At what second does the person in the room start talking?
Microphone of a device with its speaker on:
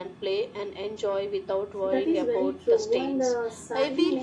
1.8 s

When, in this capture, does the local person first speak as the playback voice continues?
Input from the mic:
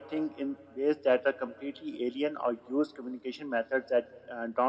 none

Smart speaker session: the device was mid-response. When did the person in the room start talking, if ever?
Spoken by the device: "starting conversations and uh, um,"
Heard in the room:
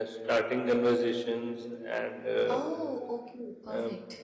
2.5 s

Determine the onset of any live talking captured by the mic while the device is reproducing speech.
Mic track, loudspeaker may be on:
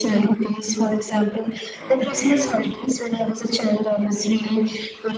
1.8 s

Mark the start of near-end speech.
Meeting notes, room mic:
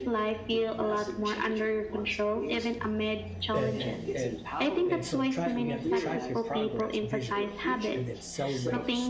3.5 s

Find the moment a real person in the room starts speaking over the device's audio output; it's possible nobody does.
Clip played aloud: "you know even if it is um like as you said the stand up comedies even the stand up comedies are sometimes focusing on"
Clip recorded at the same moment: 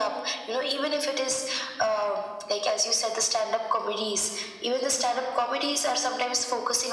none

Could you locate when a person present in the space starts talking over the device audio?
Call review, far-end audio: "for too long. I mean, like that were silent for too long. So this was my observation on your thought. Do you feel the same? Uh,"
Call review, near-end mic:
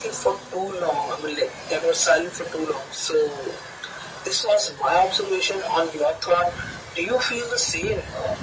none

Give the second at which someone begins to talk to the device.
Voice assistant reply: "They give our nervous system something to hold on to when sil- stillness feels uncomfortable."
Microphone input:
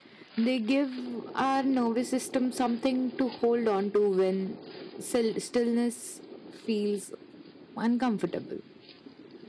none

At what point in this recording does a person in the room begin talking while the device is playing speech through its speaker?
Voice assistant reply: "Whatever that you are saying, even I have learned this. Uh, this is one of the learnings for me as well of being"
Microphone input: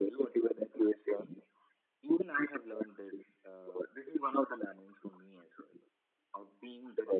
none

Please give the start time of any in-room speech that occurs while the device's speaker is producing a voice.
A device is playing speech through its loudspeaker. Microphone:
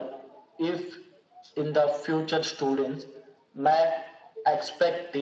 none

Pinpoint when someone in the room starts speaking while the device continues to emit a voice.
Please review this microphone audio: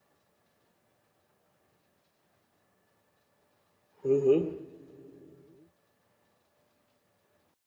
4.0 s

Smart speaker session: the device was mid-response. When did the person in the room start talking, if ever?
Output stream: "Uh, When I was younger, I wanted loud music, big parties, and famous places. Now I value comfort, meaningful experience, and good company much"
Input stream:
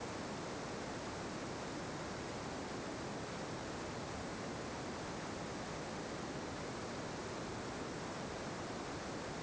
none

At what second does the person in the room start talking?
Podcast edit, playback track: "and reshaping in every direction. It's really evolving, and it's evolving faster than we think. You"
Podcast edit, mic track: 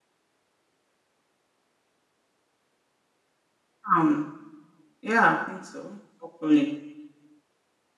3.9 s

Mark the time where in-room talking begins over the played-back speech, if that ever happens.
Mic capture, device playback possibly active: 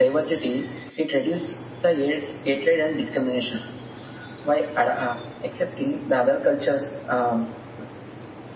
none

